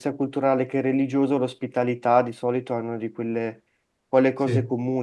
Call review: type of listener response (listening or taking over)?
listening